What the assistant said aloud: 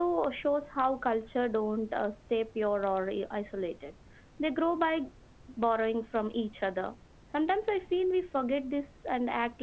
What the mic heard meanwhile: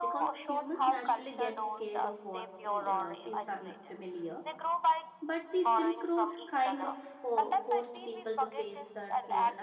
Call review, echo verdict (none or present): present